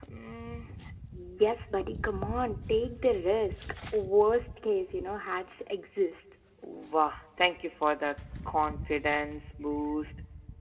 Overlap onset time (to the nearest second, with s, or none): none